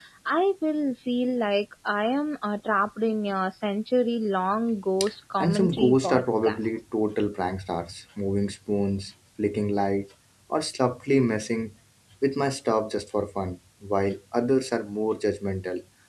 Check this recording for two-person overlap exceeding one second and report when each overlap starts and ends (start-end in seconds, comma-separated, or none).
5.4-6.7